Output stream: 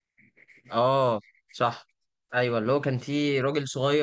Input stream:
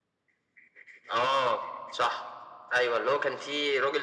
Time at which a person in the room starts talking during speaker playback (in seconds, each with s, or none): none